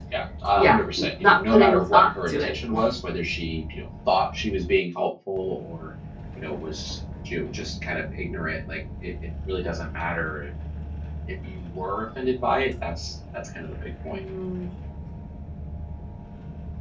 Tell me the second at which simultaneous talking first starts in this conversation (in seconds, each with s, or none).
0.6 s